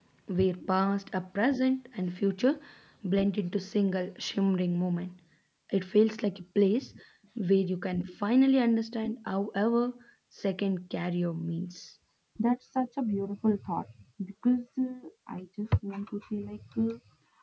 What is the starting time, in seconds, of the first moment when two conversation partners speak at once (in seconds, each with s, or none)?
none